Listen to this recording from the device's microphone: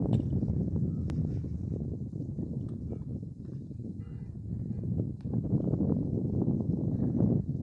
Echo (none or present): none